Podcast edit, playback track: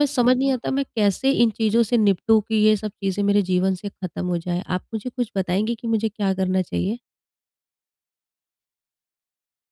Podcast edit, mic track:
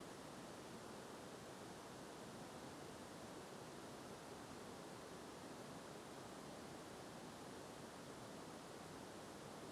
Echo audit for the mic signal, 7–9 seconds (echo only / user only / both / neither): neither